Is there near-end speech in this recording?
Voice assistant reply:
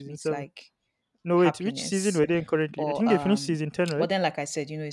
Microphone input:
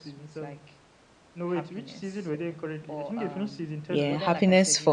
Yes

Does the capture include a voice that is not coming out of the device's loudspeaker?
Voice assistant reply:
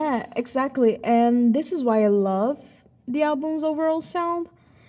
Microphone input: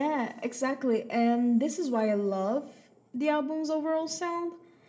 No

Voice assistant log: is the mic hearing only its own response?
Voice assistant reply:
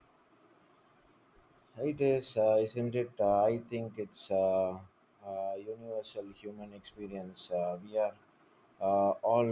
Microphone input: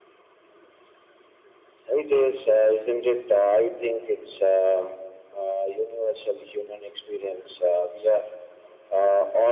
Yes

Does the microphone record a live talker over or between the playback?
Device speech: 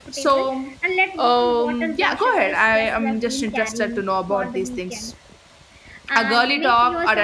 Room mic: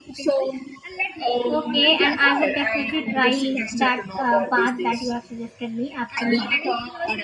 Yes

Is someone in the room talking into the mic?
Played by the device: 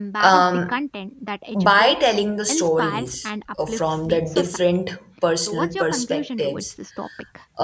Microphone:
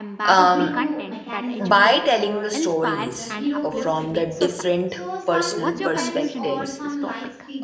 Yes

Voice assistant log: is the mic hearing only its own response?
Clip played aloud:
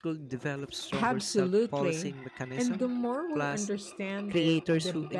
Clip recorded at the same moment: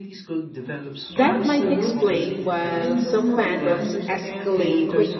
No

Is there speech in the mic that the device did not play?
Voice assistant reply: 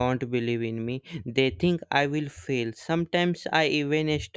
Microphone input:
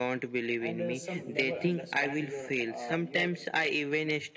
Yes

